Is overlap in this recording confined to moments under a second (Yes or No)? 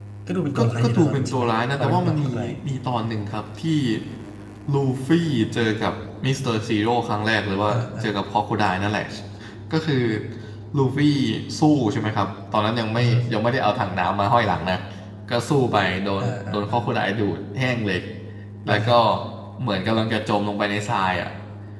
No